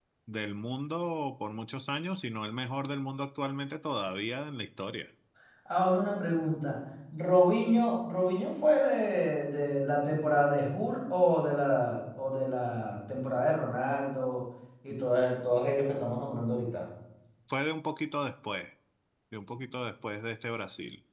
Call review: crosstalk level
none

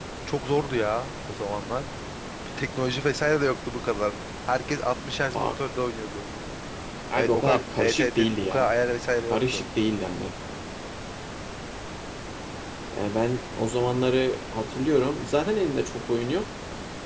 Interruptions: present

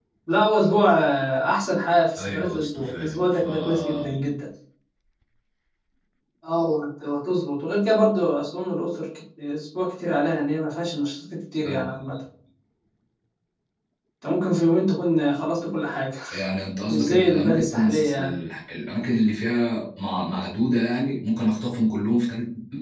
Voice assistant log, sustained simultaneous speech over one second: present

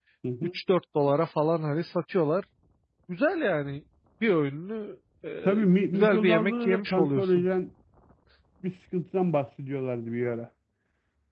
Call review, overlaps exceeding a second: present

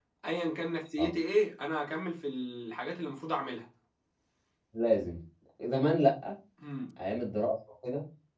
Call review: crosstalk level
none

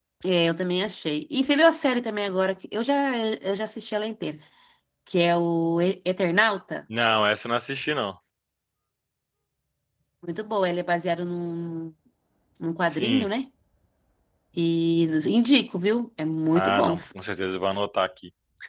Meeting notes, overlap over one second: none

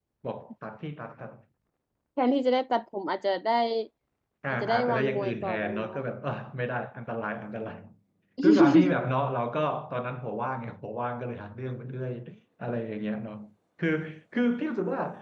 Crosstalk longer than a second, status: present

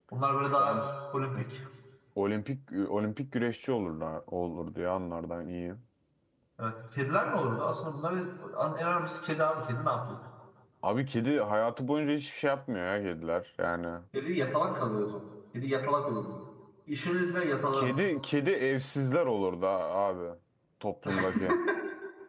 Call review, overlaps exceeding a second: none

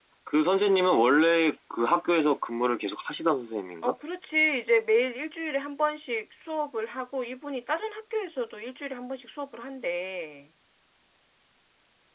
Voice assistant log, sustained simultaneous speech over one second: none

